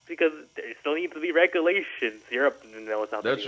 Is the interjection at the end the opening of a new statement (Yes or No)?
Yes